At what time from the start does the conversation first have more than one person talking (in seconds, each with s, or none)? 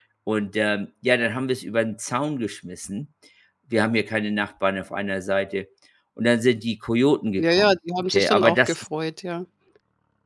7.4 s